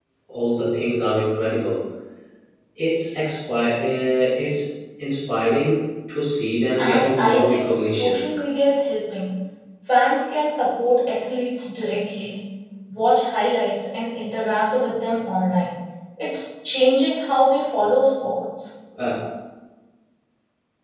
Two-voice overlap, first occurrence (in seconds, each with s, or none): 6.8 s